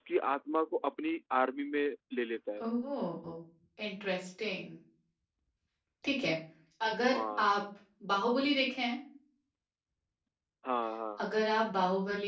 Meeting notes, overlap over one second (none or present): none